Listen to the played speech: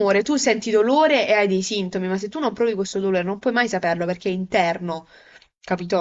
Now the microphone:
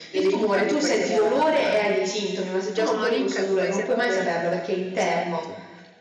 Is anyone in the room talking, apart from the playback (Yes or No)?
Yes